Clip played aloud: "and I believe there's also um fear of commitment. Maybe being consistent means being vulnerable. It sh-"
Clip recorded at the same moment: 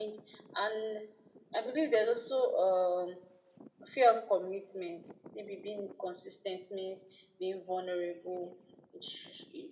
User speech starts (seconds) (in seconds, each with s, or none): none